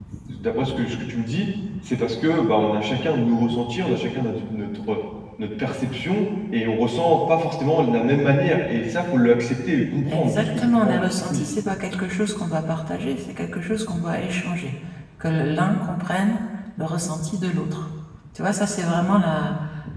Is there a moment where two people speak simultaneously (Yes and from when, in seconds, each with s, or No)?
Yes, from 10.1 s